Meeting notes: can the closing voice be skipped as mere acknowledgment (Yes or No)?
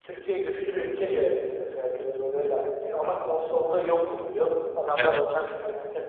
Yes